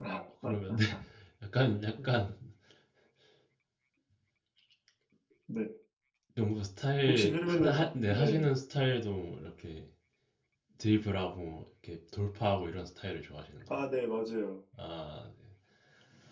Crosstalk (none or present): present